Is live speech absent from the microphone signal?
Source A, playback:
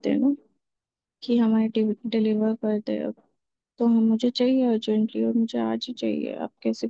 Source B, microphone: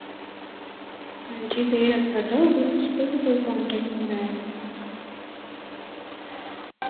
No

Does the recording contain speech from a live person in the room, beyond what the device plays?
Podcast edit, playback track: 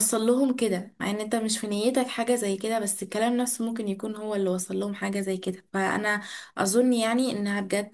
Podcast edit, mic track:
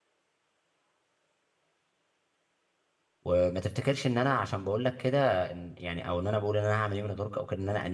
Yes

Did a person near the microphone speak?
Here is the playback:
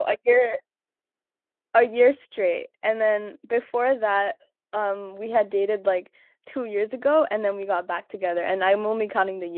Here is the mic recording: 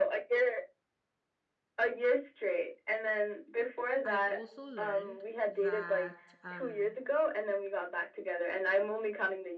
Yes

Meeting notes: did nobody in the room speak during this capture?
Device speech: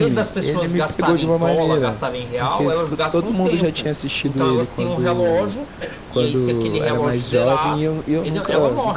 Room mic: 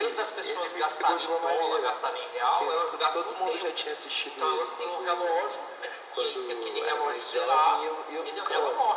Yes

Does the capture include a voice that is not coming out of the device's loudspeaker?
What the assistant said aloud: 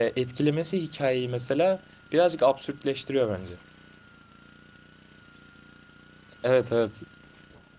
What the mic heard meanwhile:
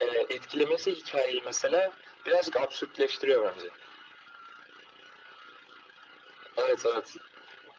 No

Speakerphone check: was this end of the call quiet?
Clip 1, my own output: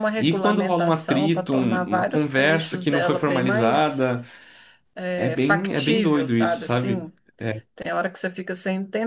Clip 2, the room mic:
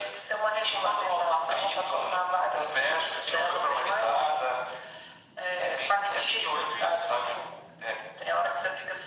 Yes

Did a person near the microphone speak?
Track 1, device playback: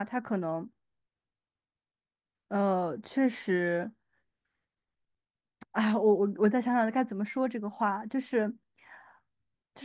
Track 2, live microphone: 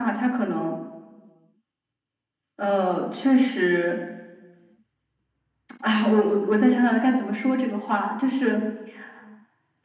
No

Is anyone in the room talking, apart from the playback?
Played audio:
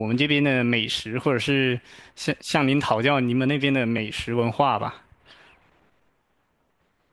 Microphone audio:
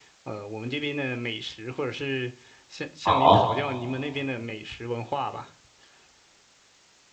Yes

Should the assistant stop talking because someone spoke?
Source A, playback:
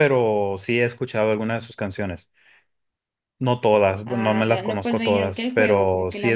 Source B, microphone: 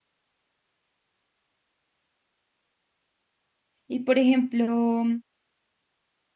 Yes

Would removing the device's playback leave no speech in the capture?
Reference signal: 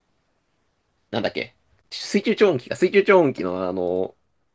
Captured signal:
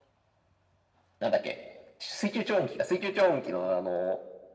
Yes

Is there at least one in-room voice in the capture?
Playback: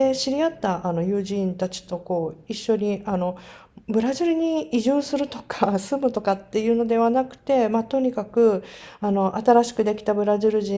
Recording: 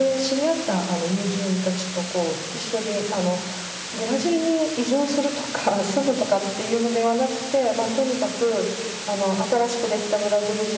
No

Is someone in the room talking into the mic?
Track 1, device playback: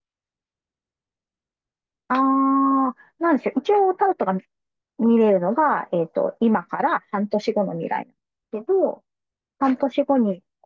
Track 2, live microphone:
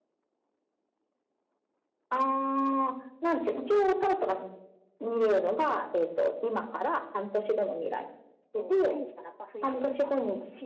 Yes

